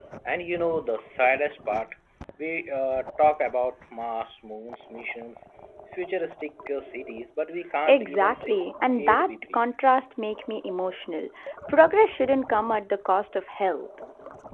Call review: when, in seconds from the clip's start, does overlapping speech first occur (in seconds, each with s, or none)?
7.9 s